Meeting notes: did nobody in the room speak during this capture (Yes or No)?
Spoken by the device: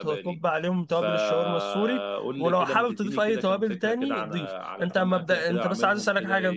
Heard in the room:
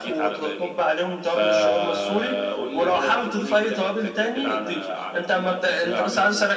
Yes